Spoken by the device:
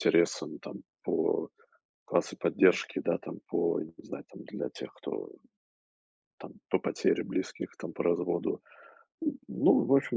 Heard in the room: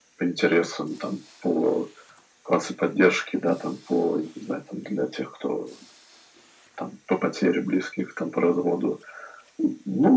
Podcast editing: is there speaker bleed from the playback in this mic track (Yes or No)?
Yes